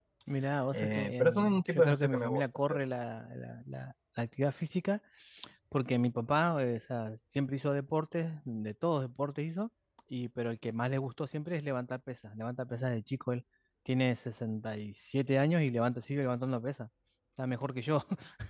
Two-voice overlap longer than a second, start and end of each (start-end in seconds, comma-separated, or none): 0.7-2.8